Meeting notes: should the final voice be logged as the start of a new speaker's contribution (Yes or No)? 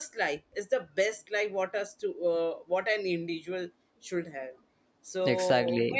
No